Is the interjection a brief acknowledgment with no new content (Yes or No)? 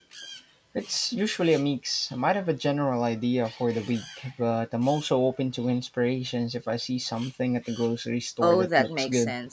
No